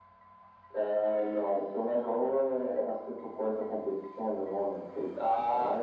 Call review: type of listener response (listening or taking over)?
taking over